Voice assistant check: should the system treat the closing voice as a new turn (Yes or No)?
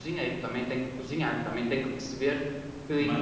No